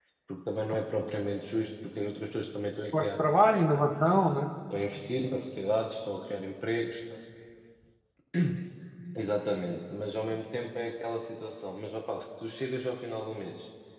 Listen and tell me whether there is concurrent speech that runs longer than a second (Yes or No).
No